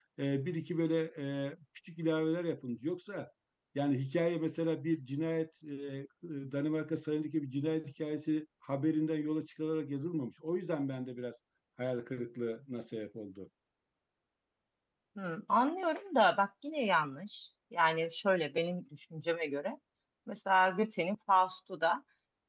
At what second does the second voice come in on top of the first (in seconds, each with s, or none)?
none